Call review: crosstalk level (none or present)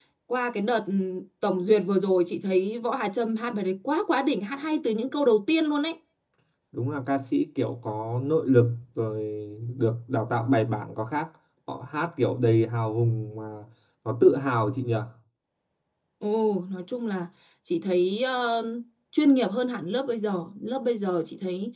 none